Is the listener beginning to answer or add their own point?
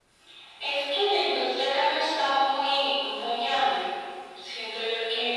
No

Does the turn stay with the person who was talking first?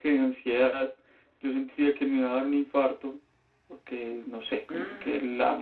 Yes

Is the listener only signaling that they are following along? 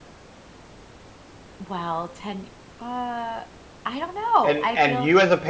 No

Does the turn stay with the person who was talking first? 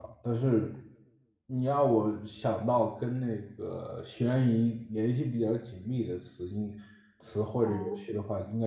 Yes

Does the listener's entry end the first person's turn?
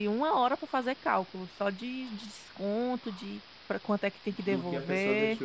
Yes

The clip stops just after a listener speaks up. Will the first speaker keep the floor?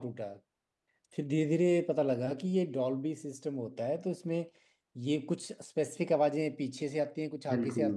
Yes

